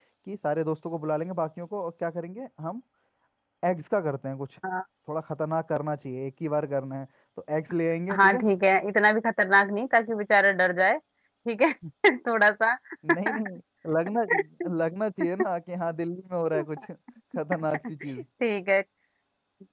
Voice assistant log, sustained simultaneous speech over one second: none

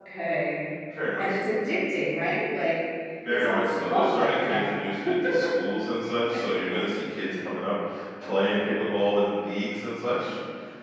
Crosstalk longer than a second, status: present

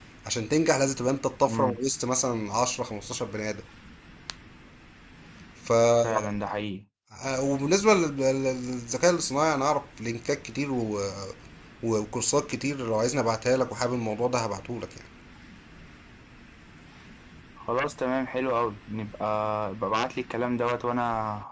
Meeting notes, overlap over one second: none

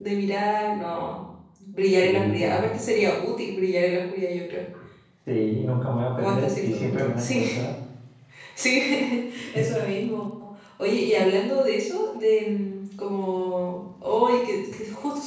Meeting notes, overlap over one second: present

